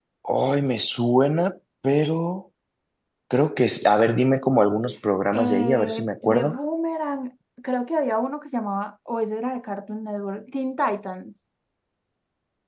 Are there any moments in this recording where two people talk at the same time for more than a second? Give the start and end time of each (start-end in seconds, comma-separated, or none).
5.3-6.6